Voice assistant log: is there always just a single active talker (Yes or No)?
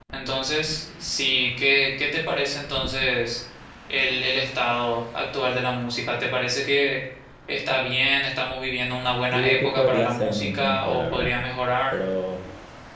No